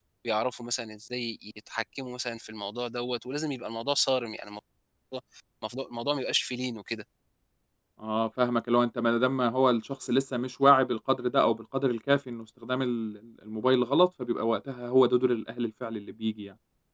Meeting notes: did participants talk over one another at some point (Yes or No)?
No